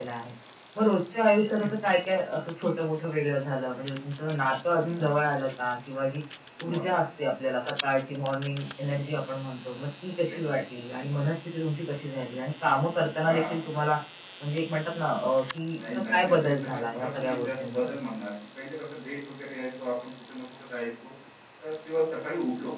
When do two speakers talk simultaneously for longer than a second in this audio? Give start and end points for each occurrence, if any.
15.9-17.9

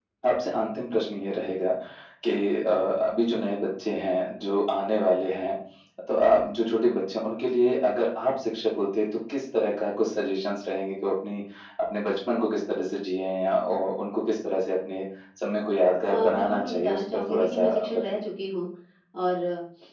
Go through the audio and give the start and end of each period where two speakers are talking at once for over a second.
16.0-18.2

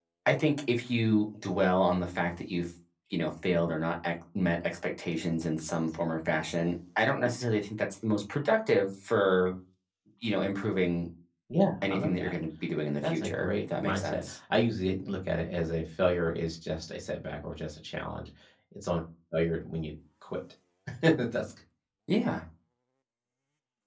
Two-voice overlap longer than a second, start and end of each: 13.0-14.4

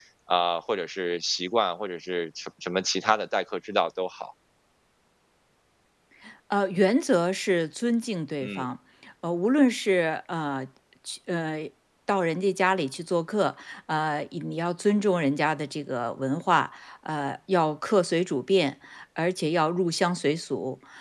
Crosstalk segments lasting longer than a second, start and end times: none

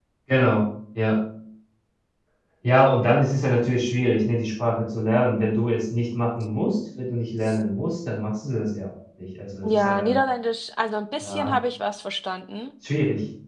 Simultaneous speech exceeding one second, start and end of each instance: none

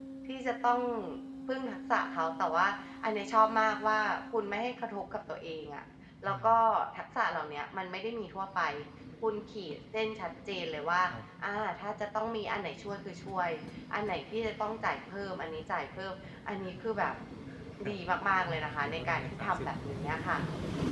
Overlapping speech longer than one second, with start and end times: 18.4-20.2

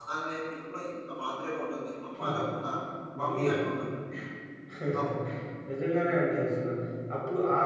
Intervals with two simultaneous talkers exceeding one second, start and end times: none

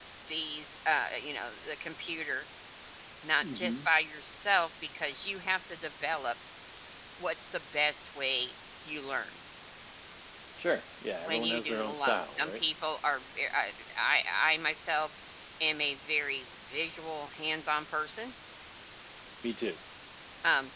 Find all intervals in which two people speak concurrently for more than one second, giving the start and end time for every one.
11.3-12.6

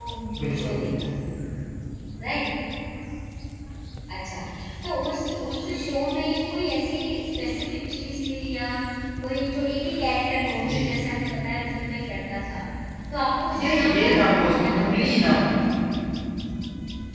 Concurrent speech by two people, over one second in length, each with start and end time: 13.6-15.1

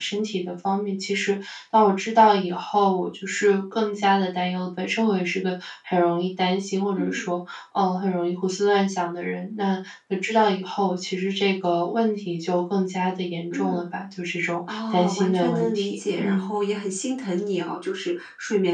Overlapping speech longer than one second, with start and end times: 14.7-16.5

